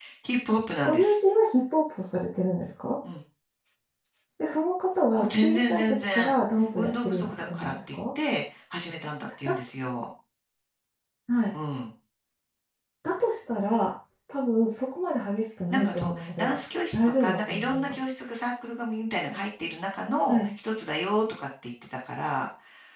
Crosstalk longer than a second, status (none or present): present